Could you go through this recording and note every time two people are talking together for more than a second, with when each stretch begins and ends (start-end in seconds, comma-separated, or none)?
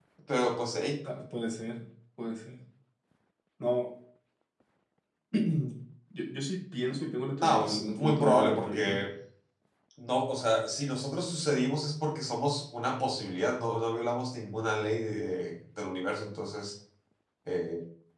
7.4-9.0